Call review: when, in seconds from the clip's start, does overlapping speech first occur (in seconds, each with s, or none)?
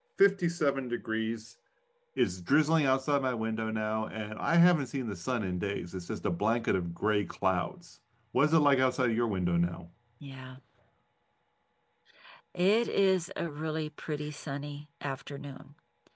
none